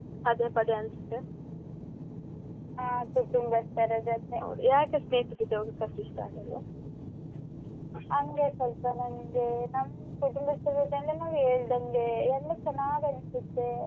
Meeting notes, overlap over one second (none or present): none